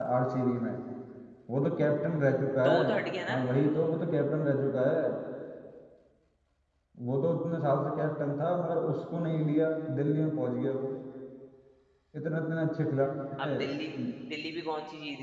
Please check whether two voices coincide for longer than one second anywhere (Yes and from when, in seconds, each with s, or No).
No